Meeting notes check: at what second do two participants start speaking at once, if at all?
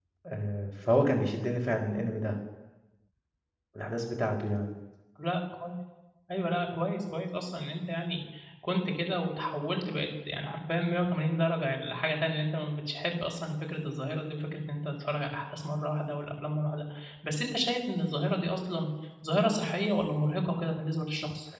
none

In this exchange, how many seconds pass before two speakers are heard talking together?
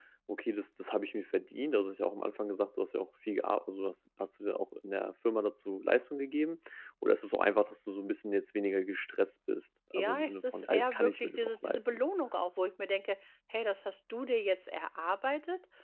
9.9 s

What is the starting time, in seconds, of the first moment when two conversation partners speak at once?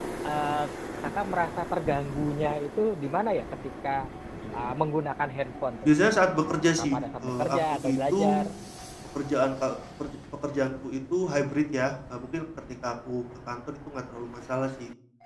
6.7 s

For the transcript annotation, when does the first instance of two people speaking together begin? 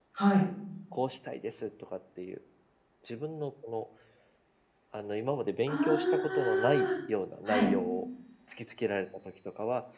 5.7 s

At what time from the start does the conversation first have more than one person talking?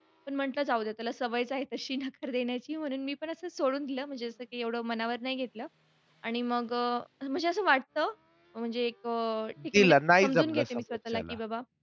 9.6 s

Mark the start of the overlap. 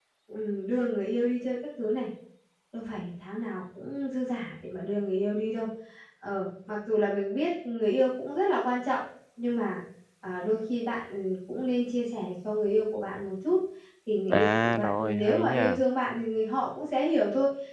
14.3 s

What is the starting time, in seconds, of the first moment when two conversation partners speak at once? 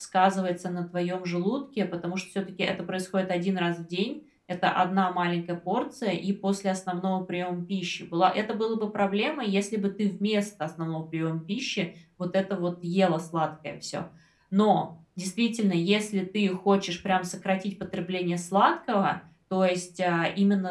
none

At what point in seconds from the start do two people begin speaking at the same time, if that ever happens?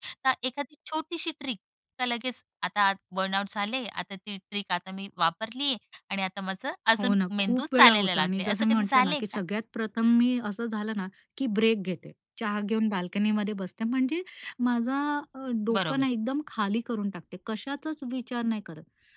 7.0 s

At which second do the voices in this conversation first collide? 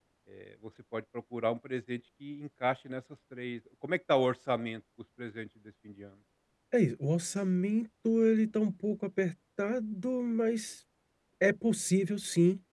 none

